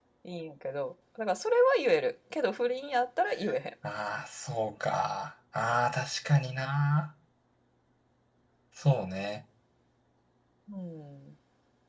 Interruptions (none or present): none